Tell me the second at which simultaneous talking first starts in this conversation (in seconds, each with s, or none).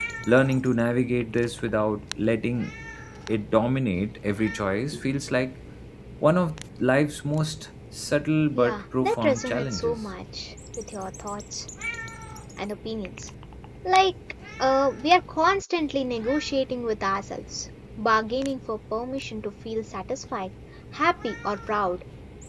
8.6 s